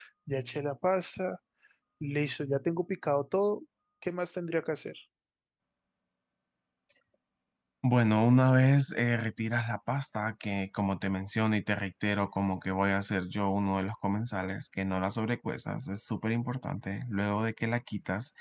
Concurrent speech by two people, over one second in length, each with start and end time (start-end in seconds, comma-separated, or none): none